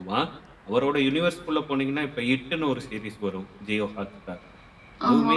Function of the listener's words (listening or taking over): listening